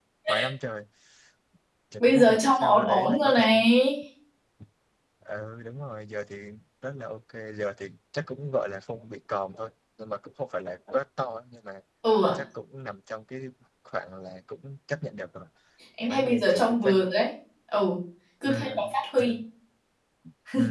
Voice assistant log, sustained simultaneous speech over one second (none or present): present